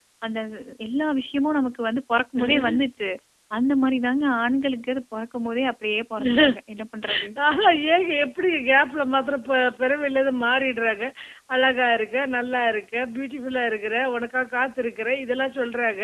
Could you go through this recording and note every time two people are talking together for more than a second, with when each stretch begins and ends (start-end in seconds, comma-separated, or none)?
none